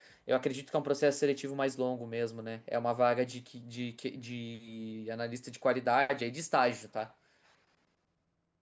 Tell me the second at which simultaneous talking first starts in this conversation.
none

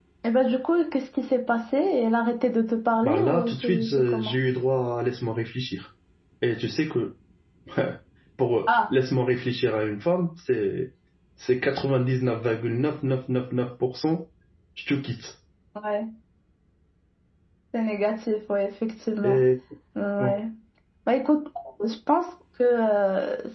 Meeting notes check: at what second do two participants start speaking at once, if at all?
3.0 s

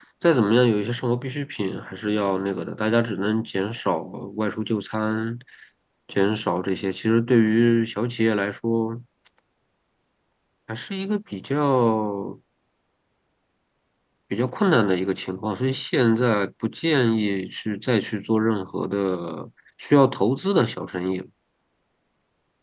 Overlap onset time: none

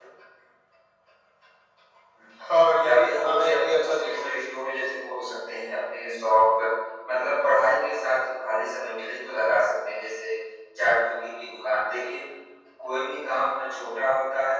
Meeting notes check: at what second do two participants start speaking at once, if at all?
2.8 s

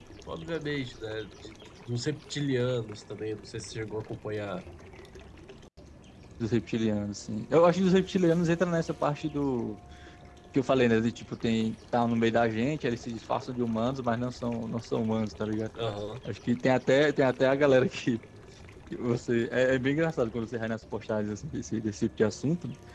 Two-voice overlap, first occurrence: none

